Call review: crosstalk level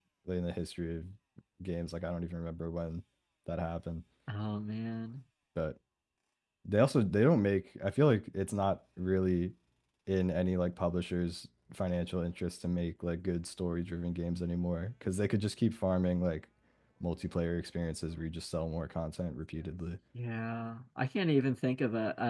none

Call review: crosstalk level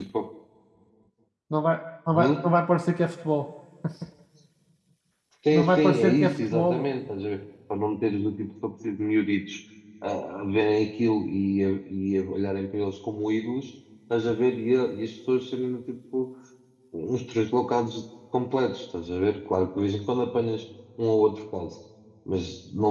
present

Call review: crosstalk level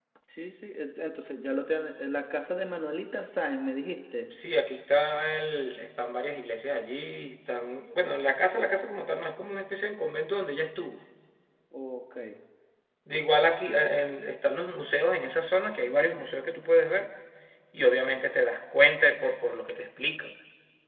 none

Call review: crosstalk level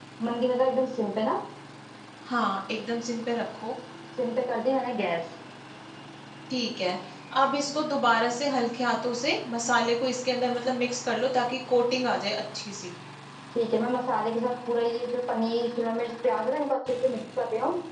none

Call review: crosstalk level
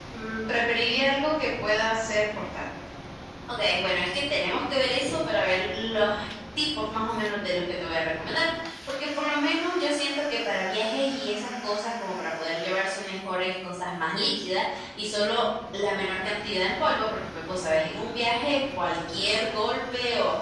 none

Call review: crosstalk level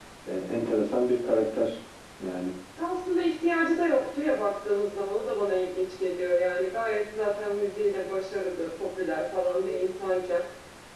none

